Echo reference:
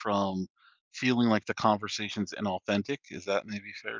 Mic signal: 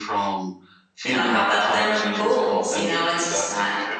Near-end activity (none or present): present